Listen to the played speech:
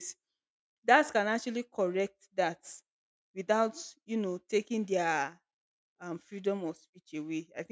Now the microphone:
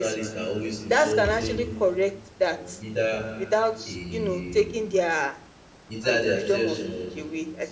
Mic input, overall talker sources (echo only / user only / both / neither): both